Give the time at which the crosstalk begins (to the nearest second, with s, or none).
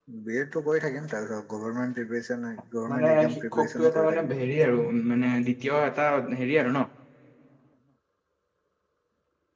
3 s